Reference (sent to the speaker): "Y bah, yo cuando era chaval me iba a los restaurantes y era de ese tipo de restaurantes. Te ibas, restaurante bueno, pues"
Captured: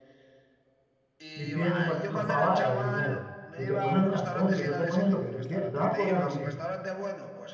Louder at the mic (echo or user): user